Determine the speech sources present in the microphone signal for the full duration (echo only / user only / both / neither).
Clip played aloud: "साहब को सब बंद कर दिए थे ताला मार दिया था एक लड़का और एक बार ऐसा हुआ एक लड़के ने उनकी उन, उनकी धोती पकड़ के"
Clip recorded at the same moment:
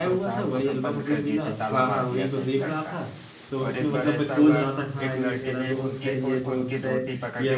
both